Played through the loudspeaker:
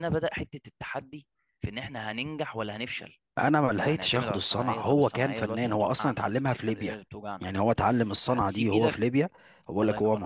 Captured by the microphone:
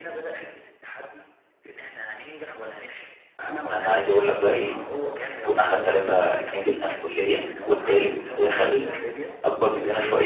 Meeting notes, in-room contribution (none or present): present